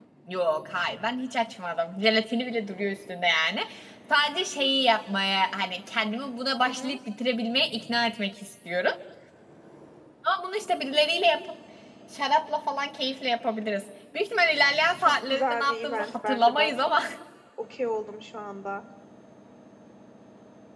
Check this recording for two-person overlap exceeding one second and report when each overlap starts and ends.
15.0-16.9

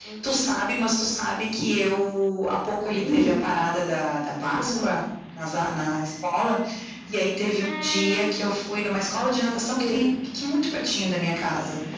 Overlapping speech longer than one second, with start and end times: none

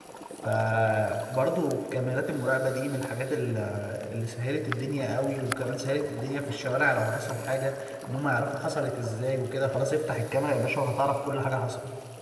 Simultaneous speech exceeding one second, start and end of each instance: none

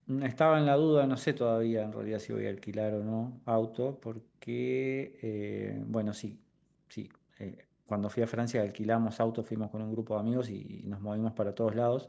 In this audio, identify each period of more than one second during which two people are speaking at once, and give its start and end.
none

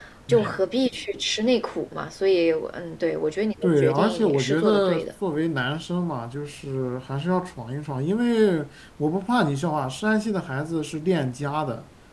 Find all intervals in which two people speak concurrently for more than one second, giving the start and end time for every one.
3.6-5.1

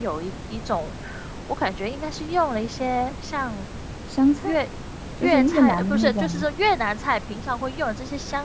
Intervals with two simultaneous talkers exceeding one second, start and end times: 5.2-6.5

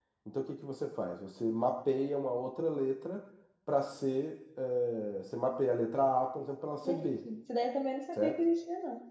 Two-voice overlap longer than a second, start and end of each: none

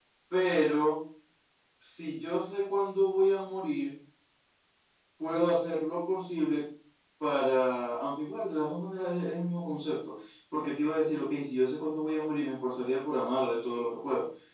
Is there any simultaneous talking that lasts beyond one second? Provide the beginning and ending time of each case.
none

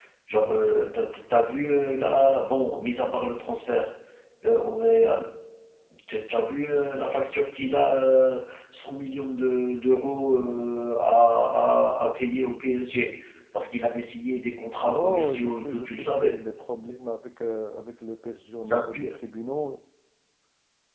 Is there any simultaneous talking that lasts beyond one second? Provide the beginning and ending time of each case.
14.9-16.4

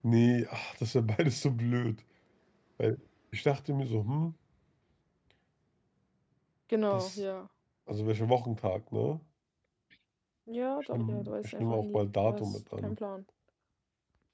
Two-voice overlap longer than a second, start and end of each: 10.9-13.0

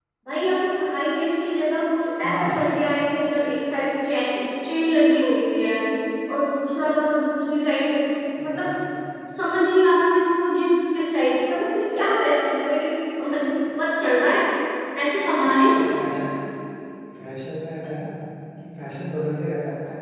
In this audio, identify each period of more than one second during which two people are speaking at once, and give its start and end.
none

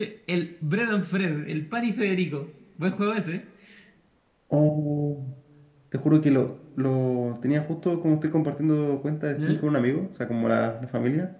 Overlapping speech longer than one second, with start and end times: none

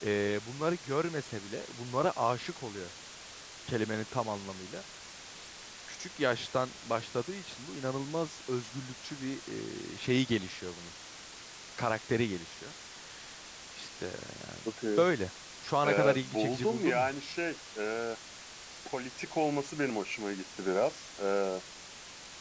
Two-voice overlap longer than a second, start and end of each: 15.8-17.1

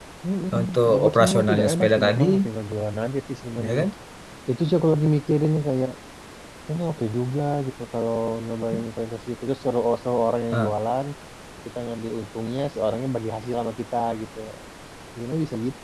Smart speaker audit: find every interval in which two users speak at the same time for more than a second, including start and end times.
0.6-2.2

